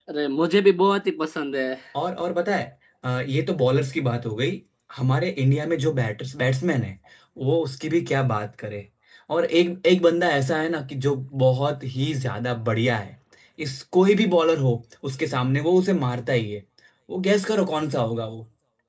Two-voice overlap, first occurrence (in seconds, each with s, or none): none